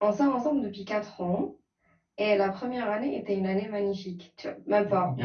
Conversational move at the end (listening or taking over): taking over